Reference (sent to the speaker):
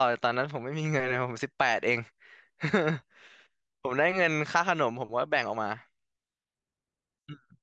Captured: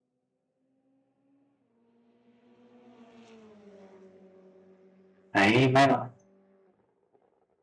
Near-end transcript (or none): ไอ้ยไม่หรอก